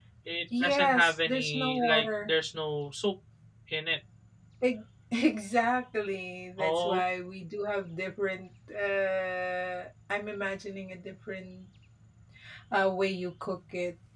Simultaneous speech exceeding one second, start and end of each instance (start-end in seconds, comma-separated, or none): 0.6-2.3